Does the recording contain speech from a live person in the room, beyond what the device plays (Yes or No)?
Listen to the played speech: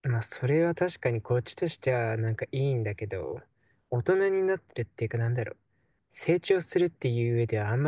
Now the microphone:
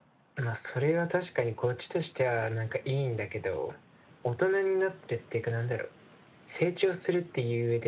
No